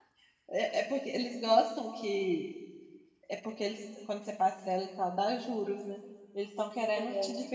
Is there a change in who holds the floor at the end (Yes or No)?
No